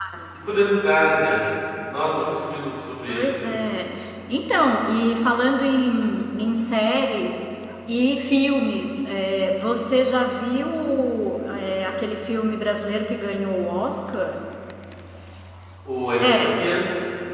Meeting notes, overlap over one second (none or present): none